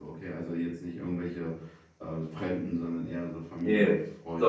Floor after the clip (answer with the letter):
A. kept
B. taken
B